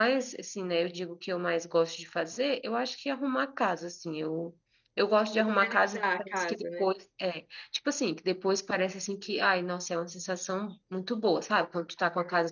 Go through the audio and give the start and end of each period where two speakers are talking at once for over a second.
5.4-6.9

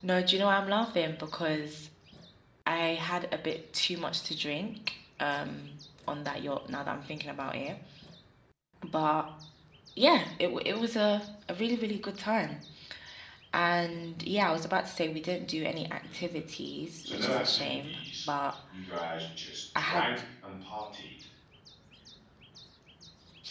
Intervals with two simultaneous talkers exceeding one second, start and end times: 17.0-18.3

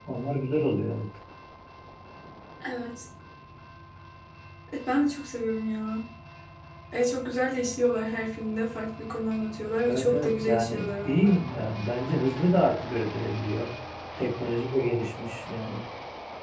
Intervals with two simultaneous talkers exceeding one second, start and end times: 9.9-11.4

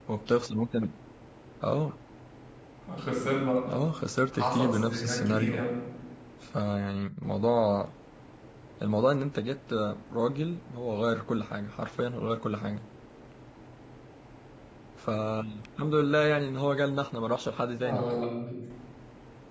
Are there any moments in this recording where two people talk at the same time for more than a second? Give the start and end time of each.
4.3-5.6

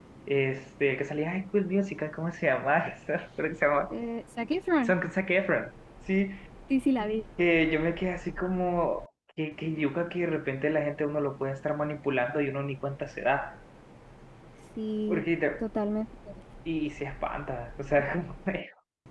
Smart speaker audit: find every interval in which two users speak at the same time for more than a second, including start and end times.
none

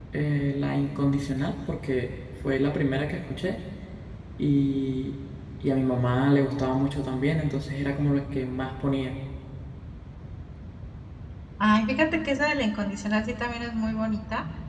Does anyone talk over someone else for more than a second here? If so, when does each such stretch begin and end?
none

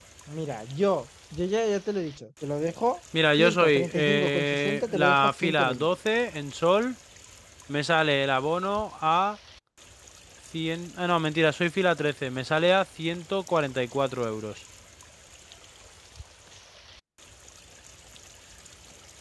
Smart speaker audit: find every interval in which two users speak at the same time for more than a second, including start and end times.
3.4-5.9

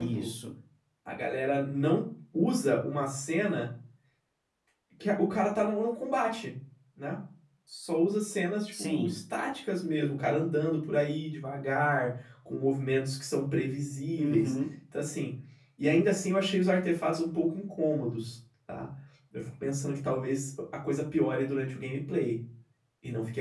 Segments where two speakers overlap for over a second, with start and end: none

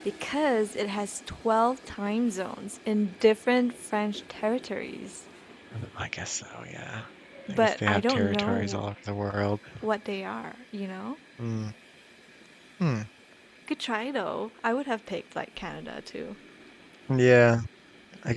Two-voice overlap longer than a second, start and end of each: 7.5-8.8

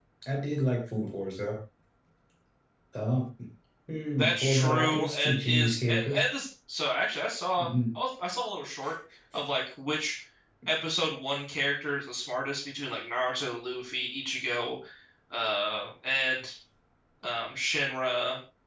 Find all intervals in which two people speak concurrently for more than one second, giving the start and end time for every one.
4.2-6.2

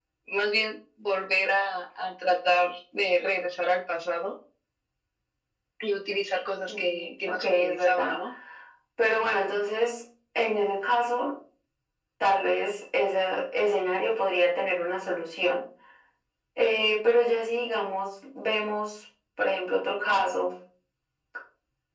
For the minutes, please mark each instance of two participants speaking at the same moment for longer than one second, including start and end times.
6.7-8.2

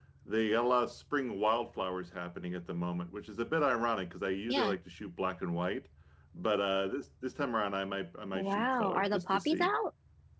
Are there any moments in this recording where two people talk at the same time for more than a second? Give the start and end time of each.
8.3-9.7

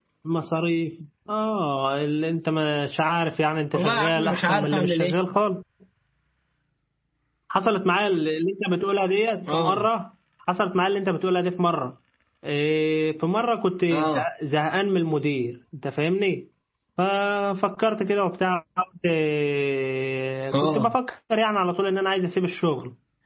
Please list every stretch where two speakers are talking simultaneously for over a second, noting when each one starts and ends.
3.7-5.1

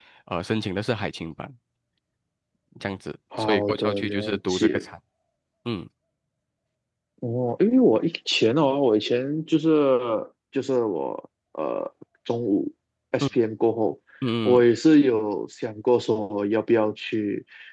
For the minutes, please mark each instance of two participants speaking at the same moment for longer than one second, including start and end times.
3.4-4.8

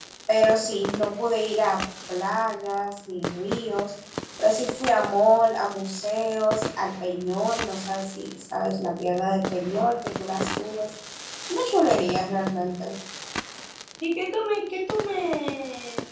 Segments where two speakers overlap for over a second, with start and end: none

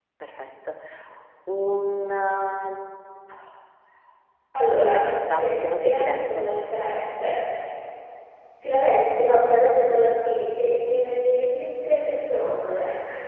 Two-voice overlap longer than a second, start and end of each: 4.8-6.5

